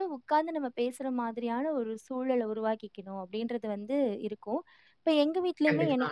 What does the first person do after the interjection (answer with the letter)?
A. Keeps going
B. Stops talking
A